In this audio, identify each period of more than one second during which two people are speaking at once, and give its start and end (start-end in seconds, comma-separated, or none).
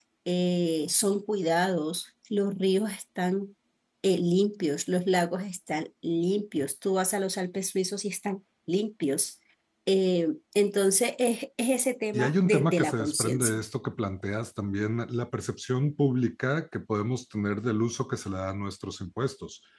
12.1-13.6